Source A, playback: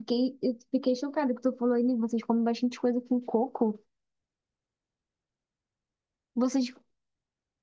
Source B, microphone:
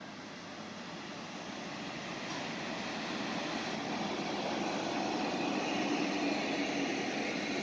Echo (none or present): none